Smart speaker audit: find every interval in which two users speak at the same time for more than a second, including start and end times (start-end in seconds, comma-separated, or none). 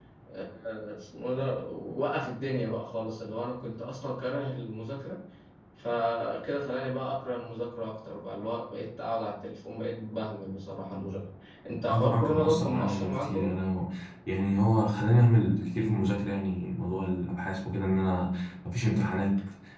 11.9-13.3